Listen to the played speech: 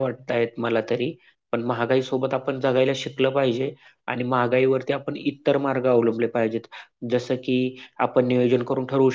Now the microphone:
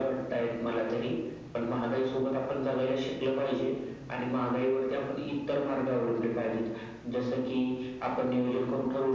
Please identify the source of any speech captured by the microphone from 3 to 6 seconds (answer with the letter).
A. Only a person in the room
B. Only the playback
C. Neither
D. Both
B